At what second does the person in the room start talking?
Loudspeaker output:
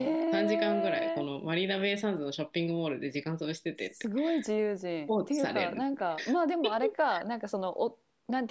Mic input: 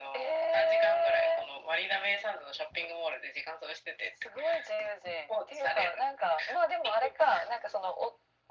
none

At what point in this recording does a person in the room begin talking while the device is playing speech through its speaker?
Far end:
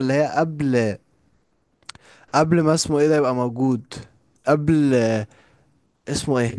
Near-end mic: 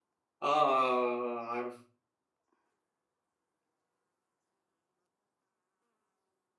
0.4 s

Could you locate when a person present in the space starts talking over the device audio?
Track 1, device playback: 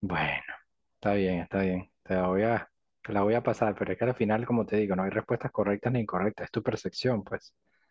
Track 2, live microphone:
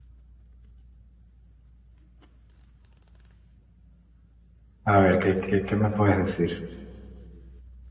4.8 s

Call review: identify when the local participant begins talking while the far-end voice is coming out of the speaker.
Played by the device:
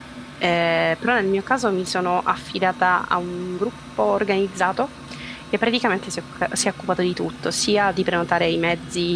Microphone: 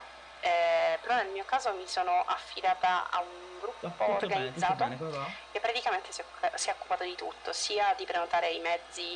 3.8 s

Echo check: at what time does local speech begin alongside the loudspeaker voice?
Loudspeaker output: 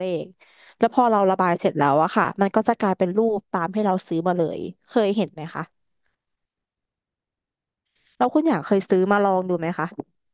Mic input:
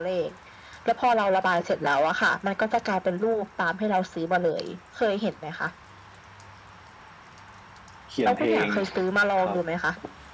8.1 s

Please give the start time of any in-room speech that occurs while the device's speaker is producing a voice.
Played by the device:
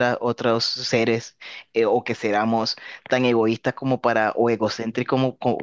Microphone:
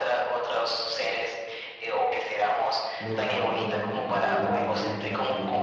3.0 s

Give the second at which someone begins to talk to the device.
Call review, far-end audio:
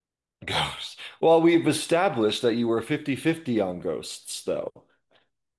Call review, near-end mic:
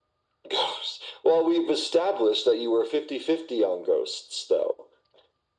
none

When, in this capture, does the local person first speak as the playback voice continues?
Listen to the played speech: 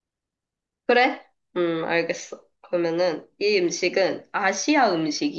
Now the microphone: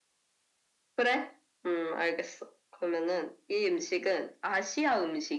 none

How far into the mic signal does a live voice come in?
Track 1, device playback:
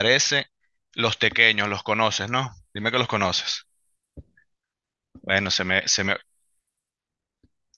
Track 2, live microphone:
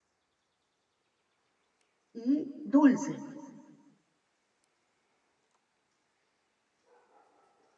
2.1 s

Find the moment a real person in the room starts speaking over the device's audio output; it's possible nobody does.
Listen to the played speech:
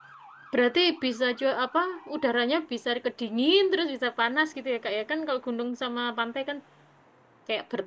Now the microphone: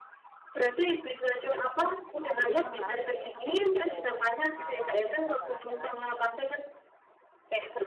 2.4 s

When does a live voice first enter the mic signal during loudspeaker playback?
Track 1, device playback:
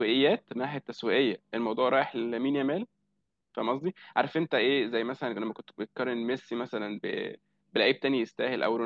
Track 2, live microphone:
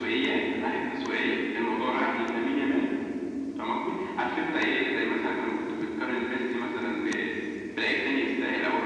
none

